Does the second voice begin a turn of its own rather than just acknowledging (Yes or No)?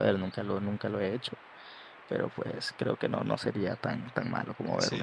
Yes